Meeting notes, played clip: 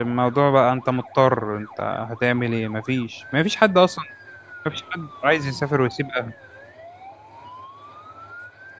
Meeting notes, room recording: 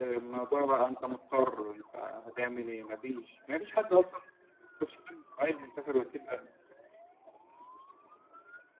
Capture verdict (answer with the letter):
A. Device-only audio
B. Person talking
A